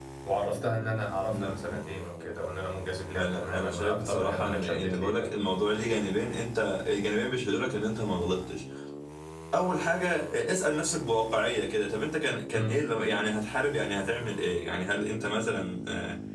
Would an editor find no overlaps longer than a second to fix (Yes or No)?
No